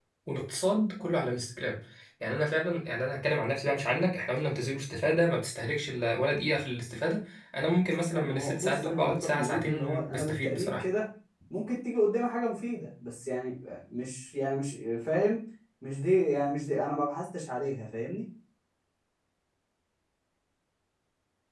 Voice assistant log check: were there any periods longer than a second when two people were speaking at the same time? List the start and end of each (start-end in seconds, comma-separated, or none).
8.1-10.8